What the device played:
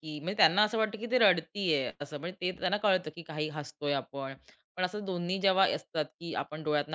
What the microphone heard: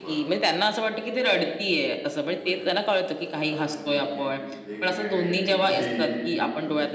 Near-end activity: present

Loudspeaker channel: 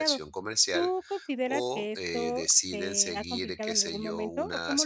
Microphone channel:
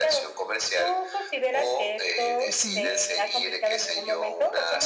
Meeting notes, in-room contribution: present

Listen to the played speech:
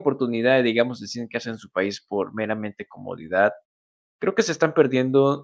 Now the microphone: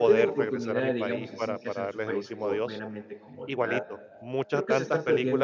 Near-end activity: present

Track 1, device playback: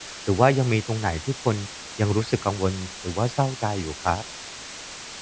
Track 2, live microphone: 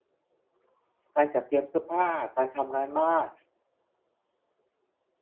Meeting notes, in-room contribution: present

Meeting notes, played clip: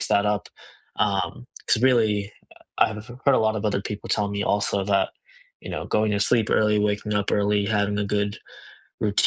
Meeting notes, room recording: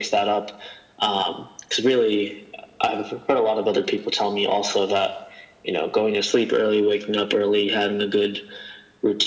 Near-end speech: none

